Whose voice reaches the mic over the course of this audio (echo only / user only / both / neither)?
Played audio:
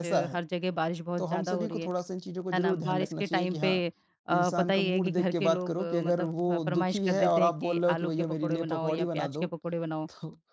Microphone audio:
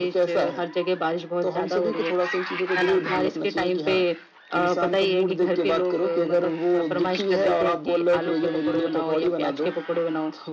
echo only